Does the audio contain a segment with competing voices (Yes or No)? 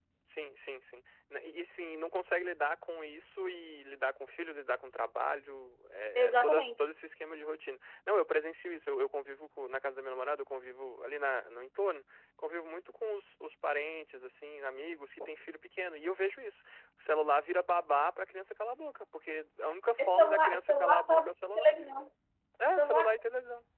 Yes